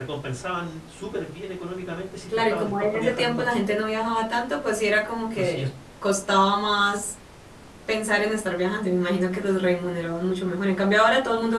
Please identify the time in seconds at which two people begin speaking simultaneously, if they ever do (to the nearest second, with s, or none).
2 s